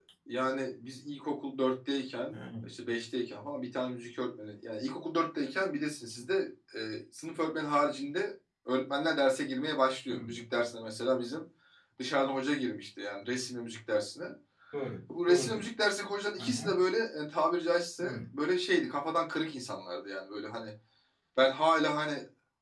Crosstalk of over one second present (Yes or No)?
No